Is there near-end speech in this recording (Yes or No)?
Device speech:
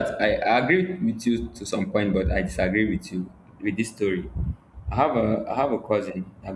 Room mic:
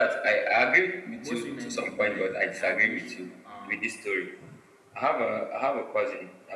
Yes